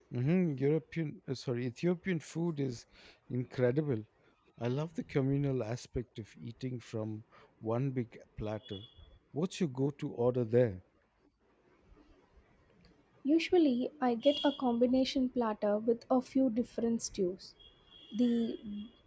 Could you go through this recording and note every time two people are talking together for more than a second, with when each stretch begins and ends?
none

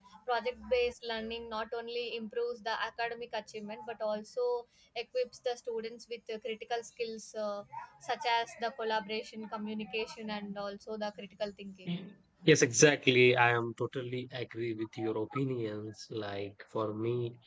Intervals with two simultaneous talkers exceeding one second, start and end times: none

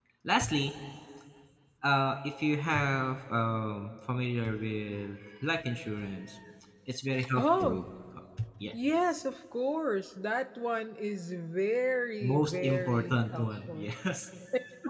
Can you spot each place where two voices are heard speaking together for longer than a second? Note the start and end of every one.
12.3-13.9

